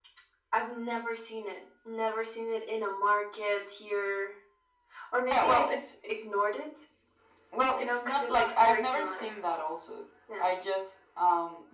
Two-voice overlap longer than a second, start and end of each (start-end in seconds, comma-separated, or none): 7.7-9.3